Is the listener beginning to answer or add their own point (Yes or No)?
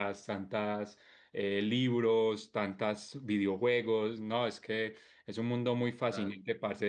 No